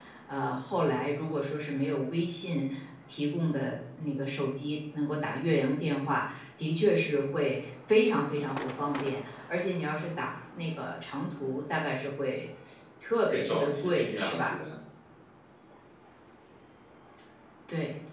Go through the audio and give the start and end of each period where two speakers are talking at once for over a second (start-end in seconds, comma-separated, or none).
13.3-14.6